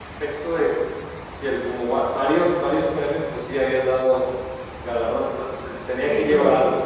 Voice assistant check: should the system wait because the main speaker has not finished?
No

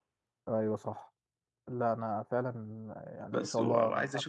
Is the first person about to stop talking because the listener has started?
Yes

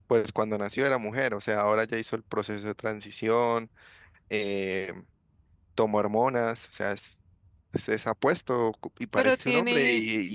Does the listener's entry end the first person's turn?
No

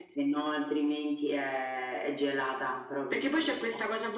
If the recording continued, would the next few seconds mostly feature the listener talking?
Yes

